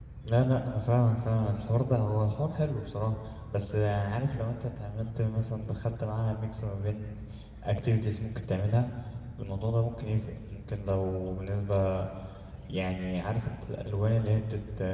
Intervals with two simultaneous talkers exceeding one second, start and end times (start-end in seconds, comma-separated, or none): none